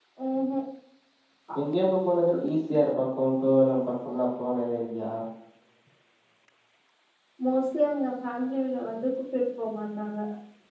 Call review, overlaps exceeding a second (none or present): none